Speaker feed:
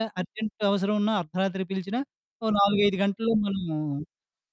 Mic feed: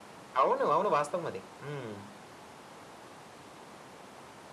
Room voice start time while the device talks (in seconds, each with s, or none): 0.4 s